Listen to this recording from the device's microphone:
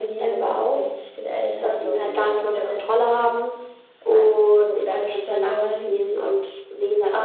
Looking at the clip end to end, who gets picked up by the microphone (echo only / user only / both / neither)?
both